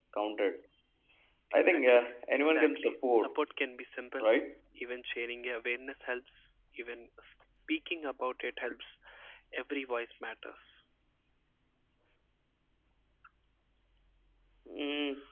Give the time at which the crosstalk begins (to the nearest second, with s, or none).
2 s